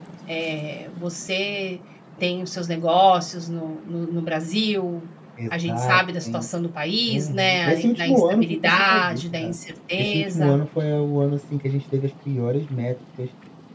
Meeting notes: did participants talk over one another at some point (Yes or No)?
Yes